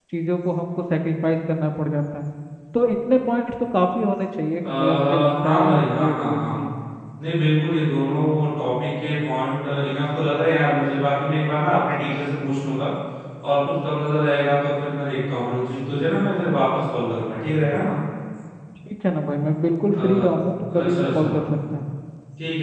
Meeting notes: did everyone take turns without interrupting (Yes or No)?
No